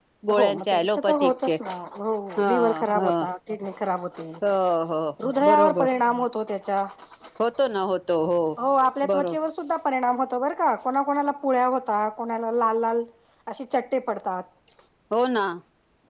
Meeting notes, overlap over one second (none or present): present